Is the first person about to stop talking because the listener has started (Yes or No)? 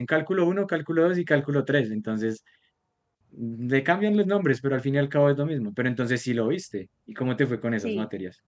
Yes